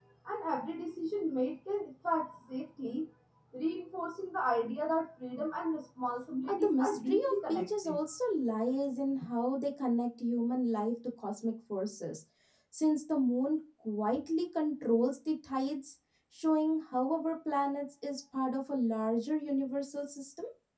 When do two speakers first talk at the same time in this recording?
6.5 s

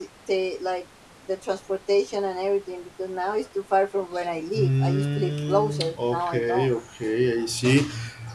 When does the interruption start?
4.5 s

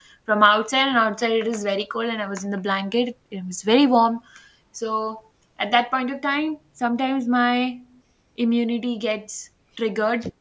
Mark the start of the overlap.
none

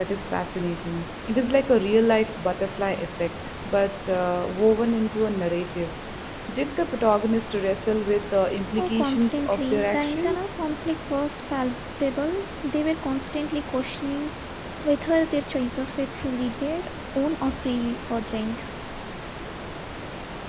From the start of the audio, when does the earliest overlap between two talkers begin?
8.8 s

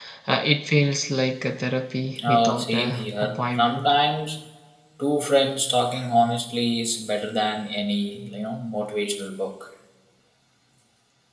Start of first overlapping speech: 2.1 s

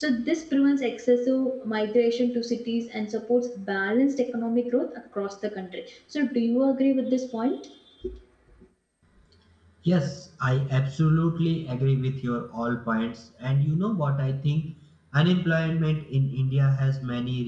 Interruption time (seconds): none

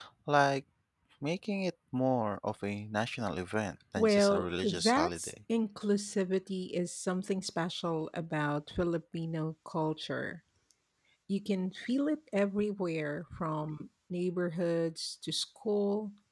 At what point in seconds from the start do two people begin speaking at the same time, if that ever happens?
4.0 s

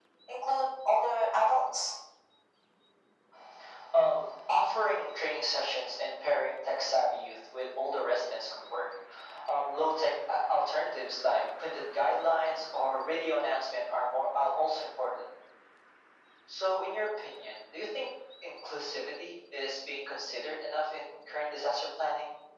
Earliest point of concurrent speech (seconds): none

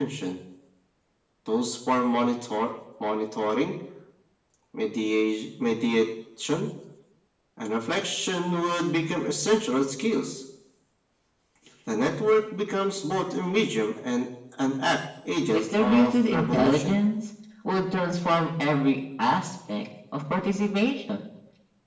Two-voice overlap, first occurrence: 15.5 s

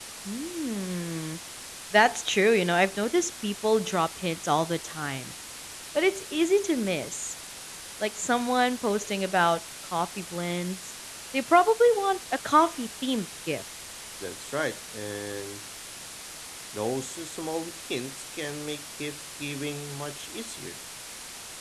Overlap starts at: none

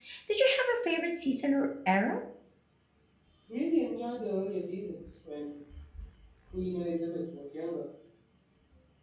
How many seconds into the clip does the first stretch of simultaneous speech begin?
none

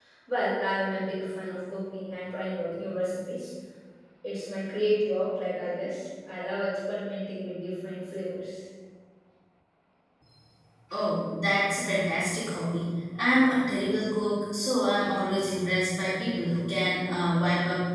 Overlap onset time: none

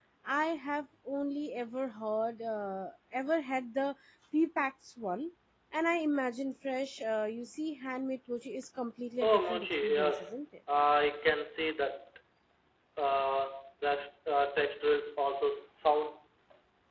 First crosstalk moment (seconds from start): 9.2 s

